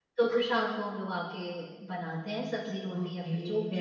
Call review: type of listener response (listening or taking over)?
taking over